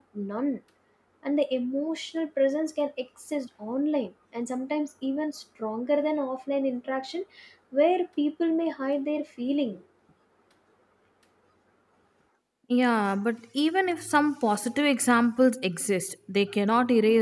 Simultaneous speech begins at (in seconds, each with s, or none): none